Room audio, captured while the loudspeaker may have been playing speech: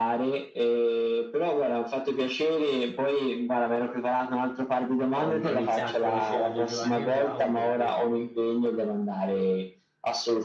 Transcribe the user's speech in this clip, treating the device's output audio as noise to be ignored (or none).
ho, ho iniziato a conoscere Aldo, Giovanni e Giacomo perché